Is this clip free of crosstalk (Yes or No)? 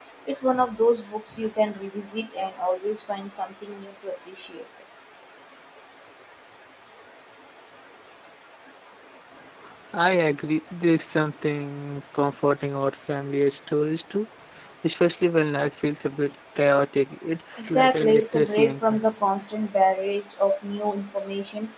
No